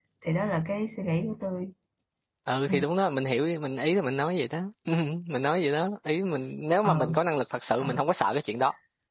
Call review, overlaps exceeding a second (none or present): none